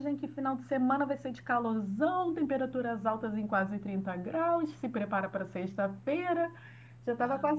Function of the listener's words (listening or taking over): listening